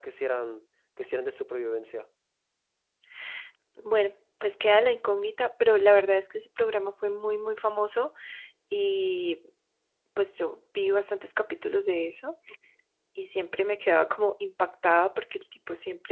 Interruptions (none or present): none